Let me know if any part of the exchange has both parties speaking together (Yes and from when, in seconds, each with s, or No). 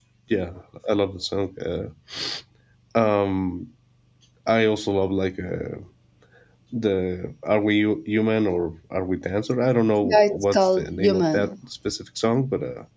Yes, from 10.0 s